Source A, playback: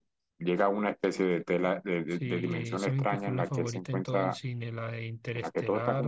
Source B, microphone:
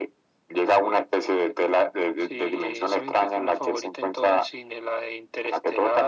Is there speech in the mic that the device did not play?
No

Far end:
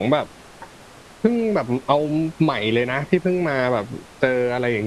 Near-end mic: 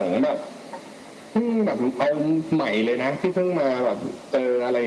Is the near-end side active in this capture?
No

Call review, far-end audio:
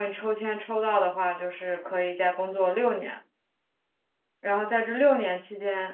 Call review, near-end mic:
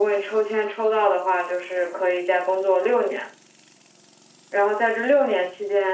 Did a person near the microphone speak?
No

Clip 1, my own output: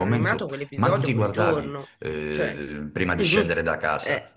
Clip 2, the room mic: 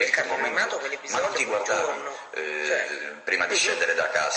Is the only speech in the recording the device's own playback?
Yes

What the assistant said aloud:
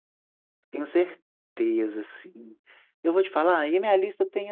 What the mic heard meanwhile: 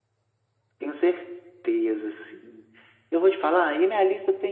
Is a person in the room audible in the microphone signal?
No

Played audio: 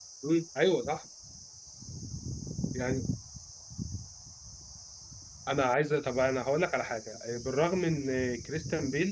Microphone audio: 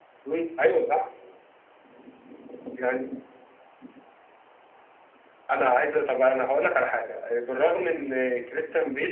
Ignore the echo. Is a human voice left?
No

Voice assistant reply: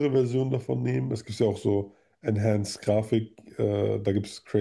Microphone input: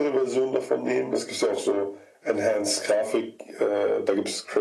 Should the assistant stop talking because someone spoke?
No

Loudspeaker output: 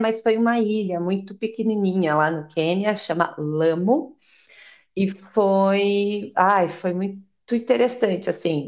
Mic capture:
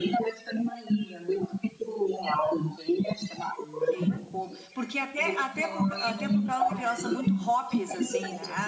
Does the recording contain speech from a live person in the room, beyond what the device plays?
Yes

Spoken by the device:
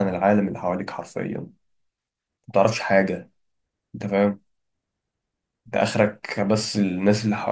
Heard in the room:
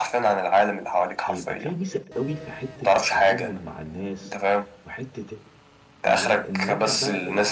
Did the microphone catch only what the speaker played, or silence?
No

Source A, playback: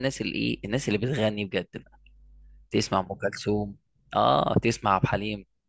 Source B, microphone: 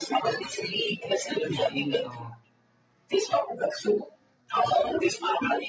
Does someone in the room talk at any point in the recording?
Yes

